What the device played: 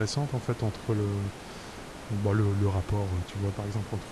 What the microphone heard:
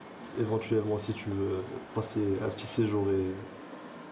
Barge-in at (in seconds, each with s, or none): 0.4 s